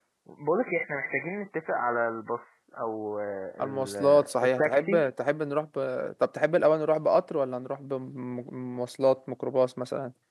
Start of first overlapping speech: 4 s

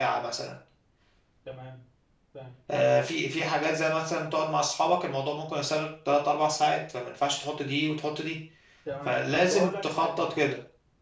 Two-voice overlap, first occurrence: 9 s

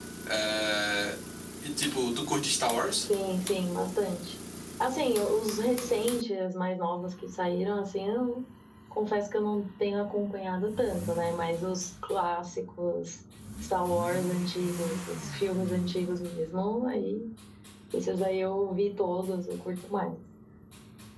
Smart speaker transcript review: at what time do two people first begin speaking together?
none

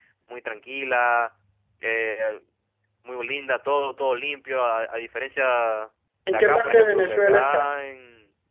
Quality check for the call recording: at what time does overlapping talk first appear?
6 s

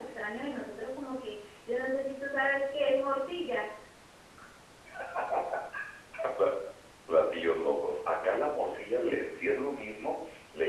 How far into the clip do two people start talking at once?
none

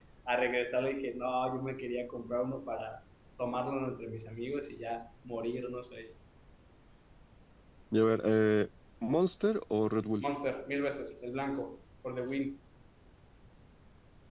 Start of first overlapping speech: none

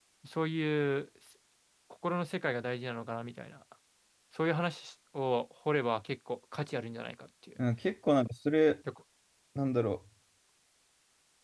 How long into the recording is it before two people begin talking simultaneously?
none

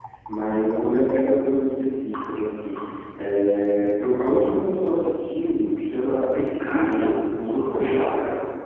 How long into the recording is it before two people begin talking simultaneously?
7 s

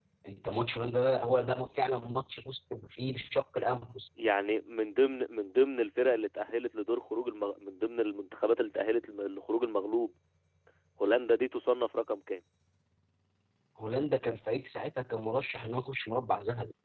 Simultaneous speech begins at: none

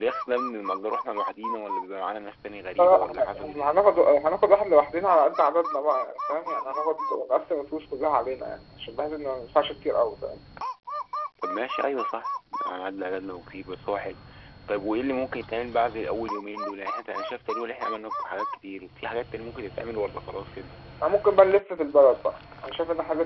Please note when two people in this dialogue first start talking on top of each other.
3 s

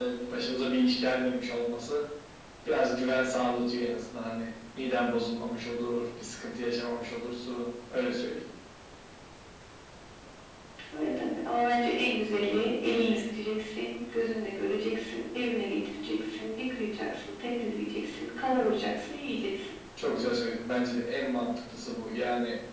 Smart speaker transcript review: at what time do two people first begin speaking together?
none

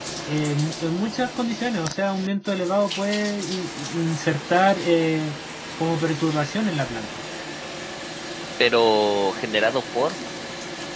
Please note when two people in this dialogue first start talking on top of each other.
none

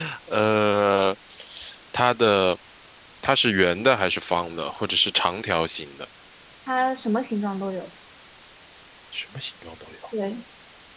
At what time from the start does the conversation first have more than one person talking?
none

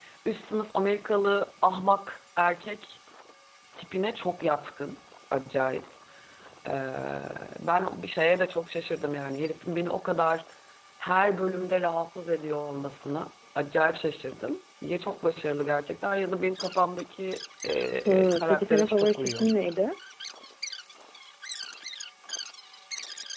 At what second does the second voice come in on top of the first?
18 s

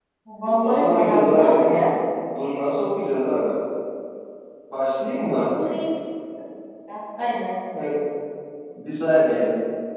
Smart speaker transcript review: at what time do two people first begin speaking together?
1 s

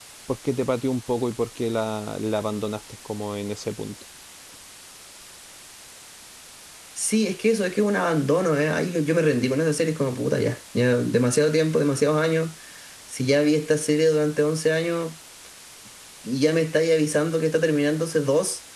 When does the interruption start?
none

